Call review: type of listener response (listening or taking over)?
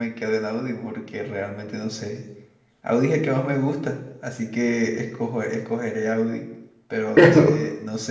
listening